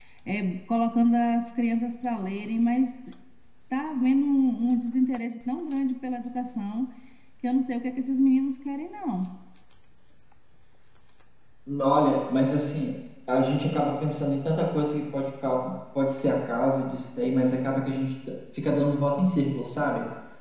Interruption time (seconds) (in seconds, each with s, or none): none